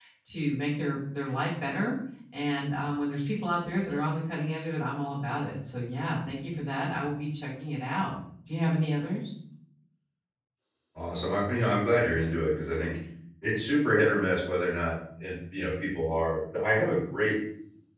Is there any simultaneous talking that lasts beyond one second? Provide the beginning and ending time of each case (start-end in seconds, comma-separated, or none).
none